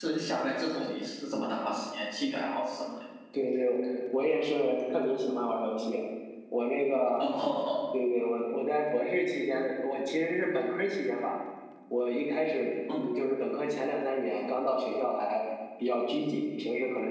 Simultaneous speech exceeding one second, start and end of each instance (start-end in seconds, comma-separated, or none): none